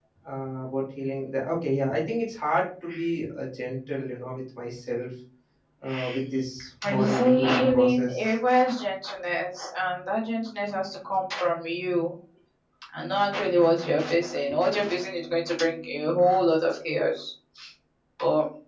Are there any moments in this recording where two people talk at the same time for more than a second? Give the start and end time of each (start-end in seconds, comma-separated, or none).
6.8-8.3